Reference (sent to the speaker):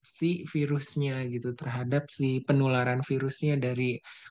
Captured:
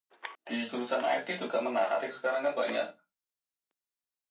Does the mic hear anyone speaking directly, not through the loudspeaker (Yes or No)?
Yes